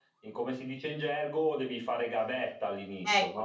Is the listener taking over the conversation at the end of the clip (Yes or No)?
Yes